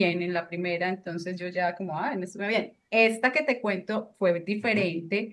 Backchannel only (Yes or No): Yes